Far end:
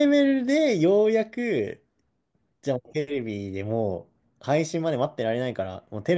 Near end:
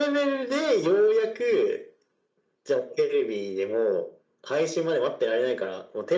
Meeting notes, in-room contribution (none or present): none